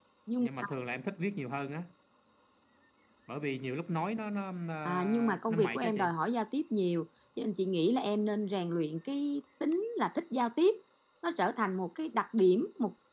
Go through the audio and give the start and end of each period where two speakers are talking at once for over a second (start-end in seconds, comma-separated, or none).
4.8-6.1